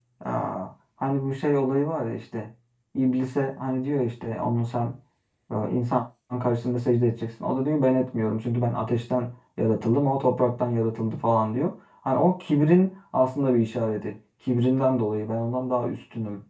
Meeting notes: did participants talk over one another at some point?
No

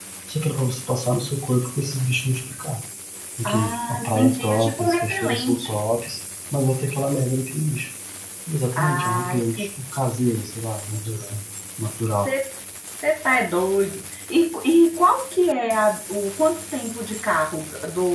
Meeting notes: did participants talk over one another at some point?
Yes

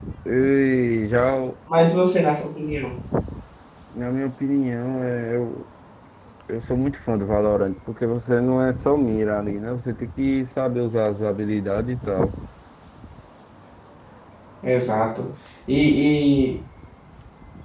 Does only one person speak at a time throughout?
Yes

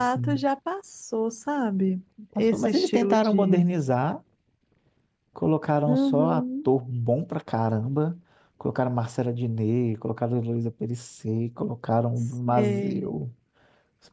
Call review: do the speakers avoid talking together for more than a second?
No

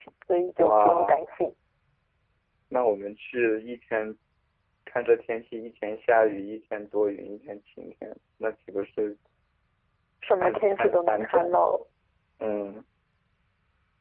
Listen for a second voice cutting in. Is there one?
Yes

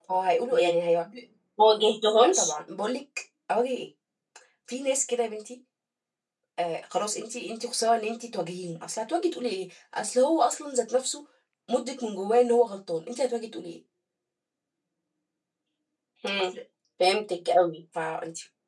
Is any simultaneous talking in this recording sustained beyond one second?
No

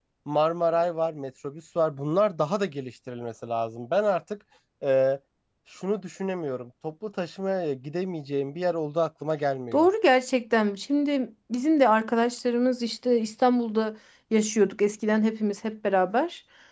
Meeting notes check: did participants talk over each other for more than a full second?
No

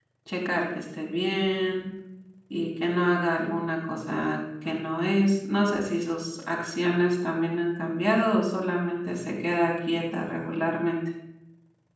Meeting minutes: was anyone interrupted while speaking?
No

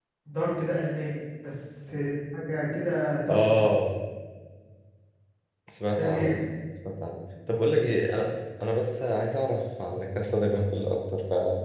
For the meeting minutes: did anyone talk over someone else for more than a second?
No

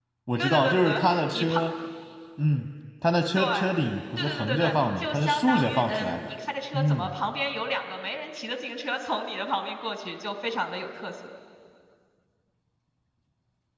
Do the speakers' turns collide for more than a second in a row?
Yes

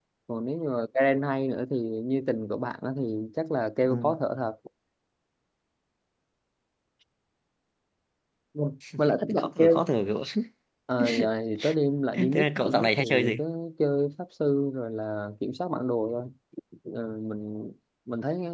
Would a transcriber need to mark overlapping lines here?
Yes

